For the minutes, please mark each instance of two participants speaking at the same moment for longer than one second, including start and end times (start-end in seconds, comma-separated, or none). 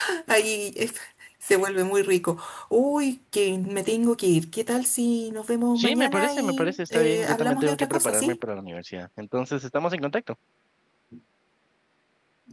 5.8-8.4